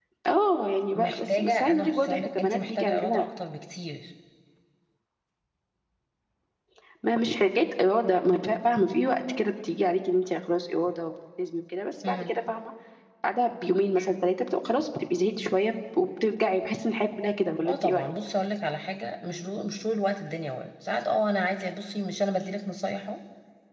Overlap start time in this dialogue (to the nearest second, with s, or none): 1 s